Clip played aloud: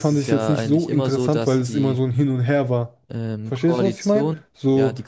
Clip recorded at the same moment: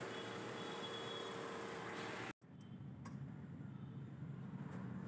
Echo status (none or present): none